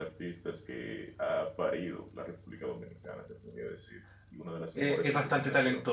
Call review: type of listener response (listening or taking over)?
taking over